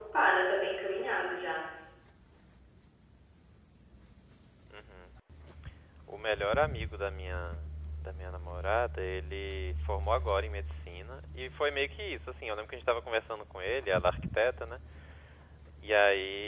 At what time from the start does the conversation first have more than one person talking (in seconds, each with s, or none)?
none